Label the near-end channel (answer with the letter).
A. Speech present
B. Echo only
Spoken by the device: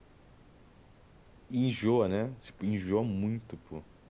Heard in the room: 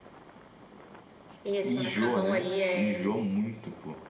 A